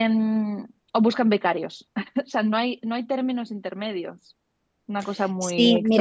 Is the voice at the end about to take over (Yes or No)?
Yes